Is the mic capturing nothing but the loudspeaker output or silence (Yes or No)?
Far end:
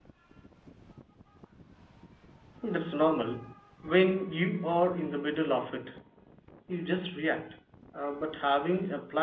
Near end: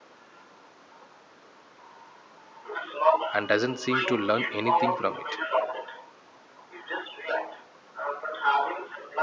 No